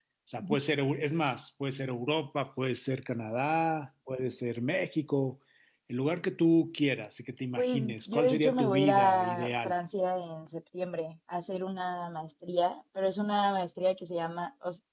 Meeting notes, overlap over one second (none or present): present